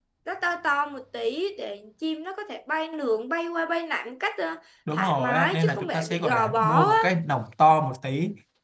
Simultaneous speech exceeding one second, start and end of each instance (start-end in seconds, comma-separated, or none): 4.9-7.0